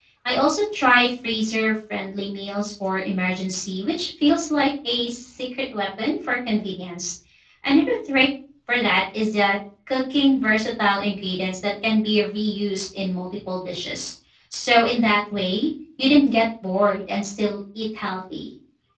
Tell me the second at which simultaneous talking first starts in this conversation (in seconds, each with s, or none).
none